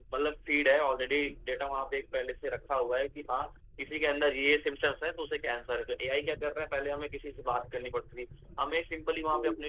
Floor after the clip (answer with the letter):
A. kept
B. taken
A